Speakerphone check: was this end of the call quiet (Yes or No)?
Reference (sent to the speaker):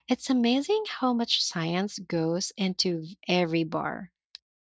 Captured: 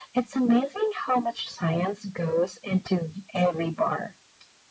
Yes